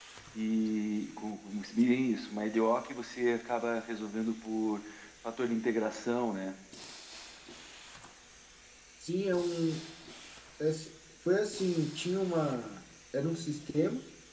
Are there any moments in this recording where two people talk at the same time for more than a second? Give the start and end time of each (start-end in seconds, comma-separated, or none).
none